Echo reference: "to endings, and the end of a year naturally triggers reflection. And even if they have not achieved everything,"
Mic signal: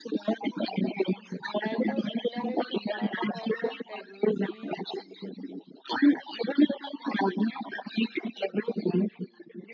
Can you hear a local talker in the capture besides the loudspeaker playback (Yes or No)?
Yes